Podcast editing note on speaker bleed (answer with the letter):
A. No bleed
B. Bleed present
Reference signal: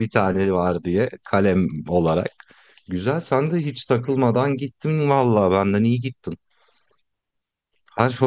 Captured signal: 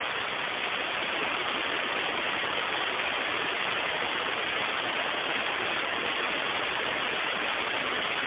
A